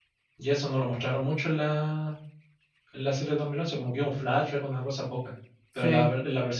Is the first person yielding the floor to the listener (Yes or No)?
No